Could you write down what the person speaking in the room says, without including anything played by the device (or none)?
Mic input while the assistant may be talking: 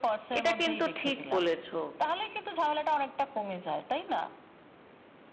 এটা কিন্তু ঠিক বলেছো